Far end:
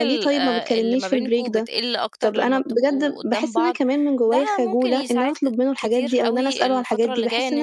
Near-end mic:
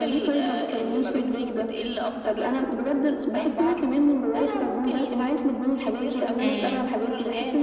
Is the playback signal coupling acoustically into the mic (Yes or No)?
Yes